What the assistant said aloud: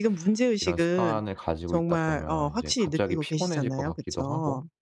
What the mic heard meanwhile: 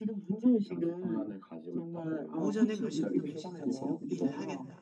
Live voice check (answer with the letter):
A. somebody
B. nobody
A